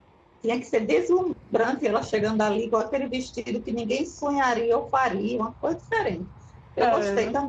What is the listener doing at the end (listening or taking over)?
taking over